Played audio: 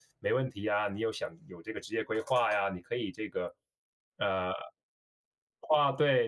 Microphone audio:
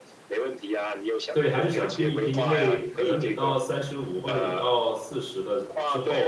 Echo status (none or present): present